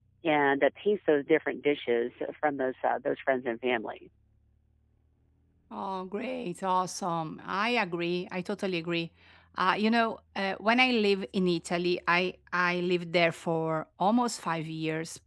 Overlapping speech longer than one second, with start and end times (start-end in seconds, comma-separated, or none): none